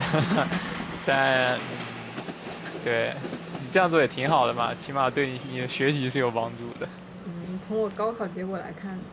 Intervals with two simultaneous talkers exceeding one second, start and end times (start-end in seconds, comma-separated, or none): none